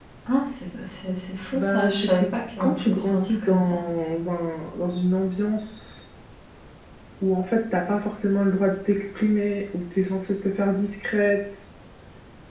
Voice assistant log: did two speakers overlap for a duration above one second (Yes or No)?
Yes